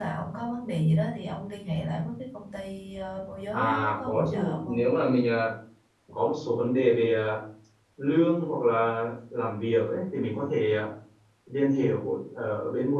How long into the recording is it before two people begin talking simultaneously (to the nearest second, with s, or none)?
4 s